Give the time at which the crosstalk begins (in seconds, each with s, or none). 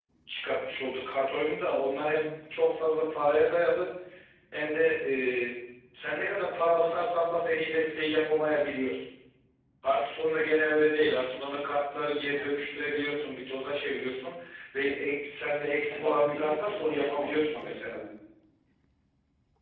15.9 s